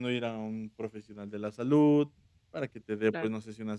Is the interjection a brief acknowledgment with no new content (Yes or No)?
Yes